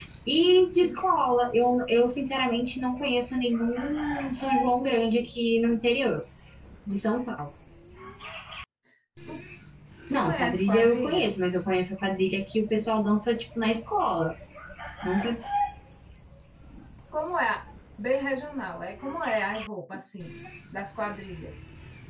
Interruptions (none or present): present